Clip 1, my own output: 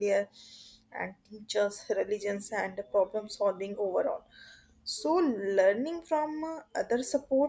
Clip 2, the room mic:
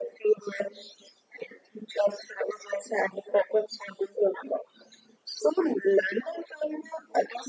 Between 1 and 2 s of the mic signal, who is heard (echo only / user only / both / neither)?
echo only